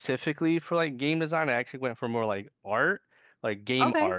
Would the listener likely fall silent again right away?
Yes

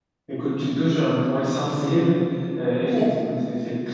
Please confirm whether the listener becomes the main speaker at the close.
No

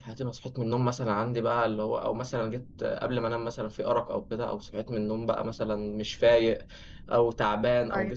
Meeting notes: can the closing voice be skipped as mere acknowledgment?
Yes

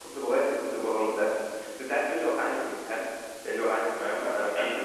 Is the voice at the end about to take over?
No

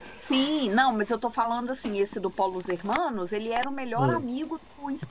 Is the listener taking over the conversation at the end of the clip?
No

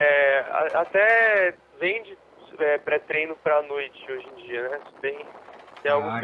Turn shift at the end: No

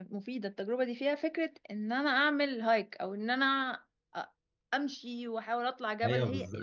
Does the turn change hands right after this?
Yes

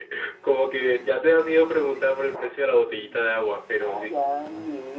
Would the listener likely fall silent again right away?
No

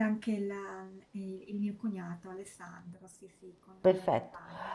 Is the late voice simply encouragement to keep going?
No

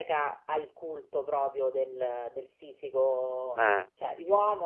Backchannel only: Yes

